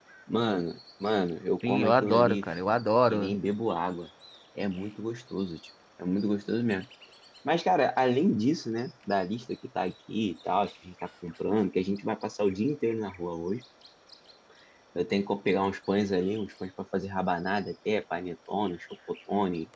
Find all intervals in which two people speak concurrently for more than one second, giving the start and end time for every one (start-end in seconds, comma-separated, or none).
1.7-3.3